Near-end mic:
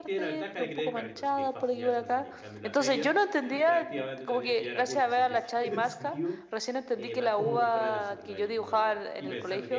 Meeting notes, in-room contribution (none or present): present